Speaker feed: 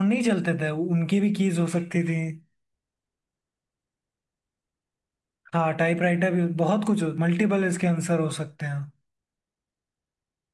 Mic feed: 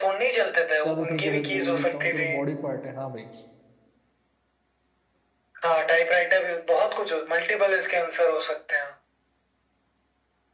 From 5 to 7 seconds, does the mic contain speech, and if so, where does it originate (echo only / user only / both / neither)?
echo only